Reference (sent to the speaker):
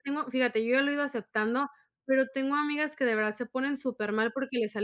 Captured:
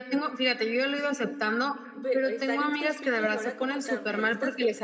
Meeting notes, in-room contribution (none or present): present